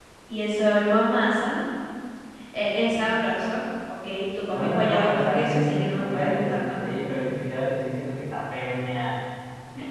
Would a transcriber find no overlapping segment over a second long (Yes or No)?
No